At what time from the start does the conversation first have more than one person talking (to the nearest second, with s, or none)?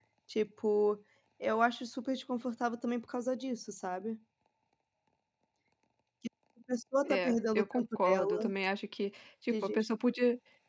7 s